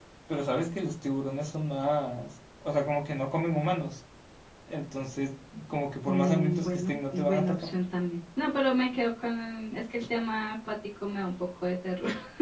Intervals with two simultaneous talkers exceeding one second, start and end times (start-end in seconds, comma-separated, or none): 6.0-7.7